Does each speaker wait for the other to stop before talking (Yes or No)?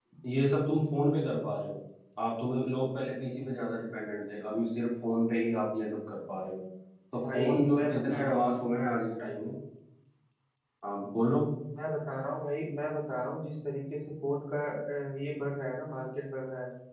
No